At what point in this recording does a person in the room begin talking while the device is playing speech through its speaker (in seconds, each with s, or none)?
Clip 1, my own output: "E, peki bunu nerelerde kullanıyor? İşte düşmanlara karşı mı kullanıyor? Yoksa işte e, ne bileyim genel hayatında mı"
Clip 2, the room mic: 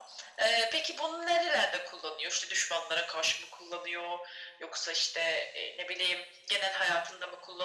none